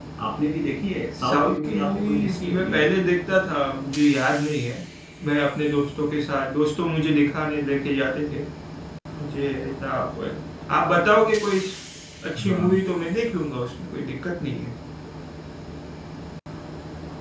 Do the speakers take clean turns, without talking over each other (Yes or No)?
No